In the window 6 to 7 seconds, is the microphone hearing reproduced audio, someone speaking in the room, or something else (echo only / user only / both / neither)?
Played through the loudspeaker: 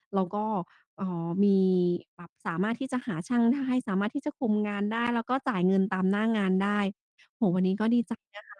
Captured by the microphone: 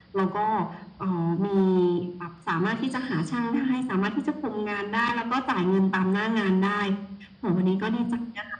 echo only